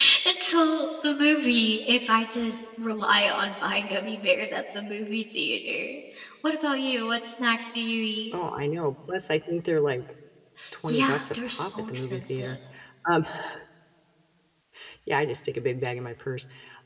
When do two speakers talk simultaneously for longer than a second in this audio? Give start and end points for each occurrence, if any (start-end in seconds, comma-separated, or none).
10.8-12.6